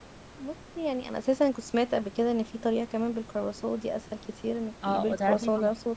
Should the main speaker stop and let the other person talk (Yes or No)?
Yes